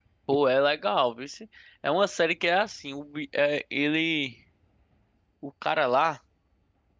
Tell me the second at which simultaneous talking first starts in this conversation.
none

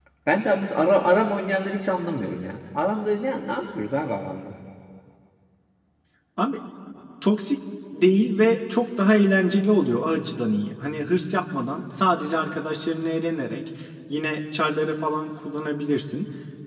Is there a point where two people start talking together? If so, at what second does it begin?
none

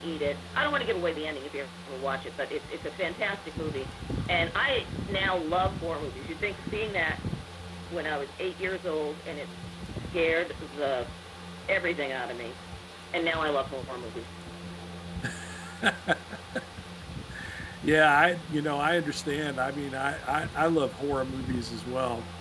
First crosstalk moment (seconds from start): none

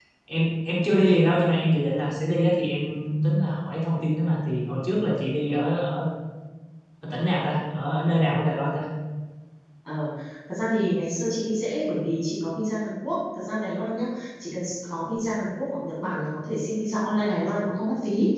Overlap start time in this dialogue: none

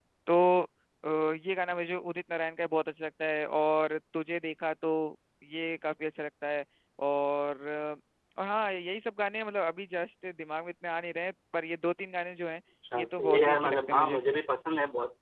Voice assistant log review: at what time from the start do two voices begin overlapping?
12.9 s

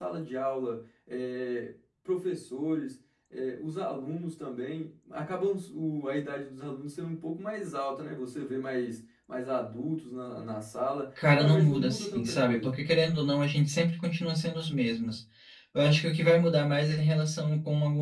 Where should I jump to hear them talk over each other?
11.2 s

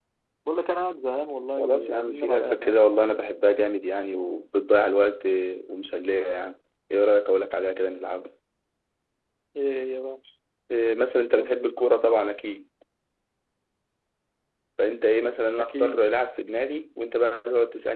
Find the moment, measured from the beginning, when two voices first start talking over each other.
1.6 s

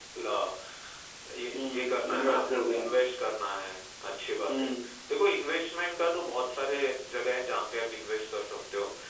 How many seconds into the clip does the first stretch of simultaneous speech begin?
1.5 s

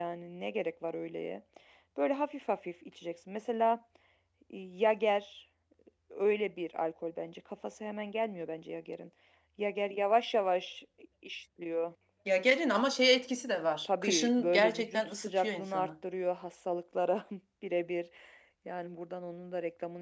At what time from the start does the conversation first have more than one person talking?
13.8 s

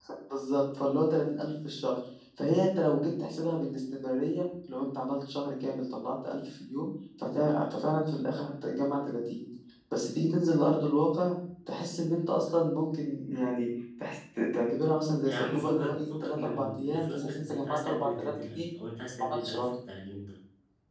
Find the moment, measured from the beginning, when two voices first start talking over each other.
15.2 s

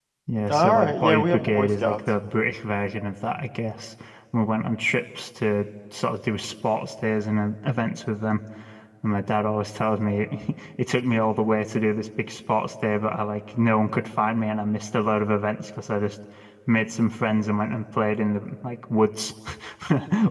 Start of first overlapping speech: 0.5 s

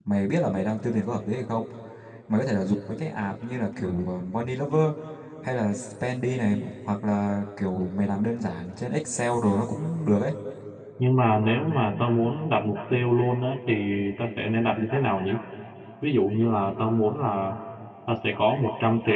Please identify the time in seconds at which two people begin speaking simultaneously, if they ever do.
none

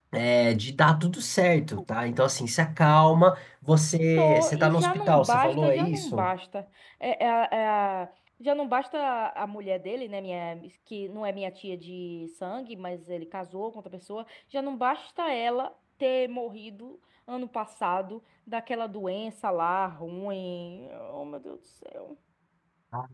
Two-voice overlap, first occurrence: 4.2 s

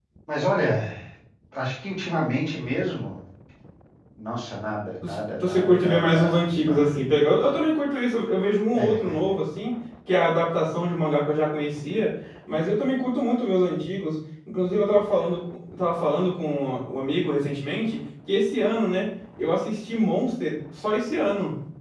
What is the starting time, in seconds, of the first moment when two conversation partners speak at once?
5.0 s

